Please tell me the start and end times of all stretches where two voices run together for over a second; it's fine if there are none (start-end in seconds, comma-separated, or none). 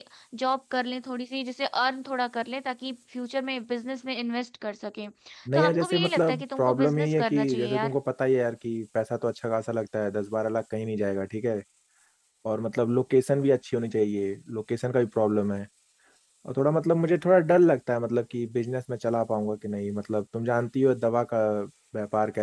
5.5-8.0